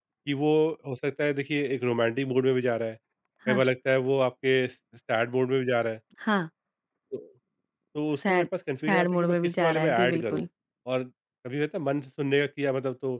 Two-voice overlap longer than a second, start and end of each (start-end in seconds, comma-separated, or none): 8.9-10.4